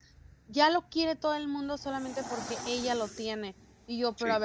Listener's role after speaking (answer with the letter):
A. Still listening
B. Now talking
A